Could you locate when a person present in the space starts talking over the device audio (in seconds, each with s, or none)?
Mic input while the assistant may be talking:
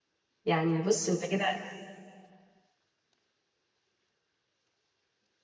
0.4 s